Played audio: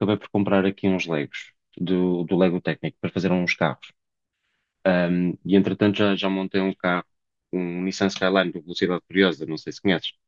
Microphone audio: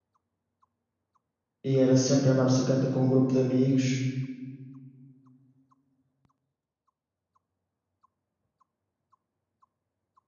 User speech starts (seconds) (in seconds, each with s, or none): 1.6 s